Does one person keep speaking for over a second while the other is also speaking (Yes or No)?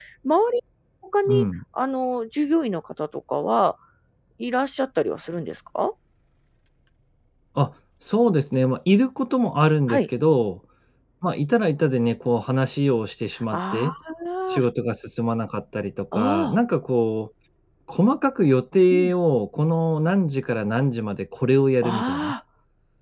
No